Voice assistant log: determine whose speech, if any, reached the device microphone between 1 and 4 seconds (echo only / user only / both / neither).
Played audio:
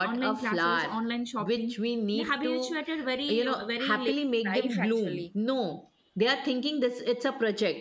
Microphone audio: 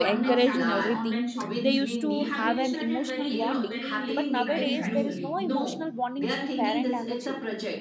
both